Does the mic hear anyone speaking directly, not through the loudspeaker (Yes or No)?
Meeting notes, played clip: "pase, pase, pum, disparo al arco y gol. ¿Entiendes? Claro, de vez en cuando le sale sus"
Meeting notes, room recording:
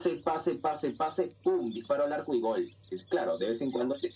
No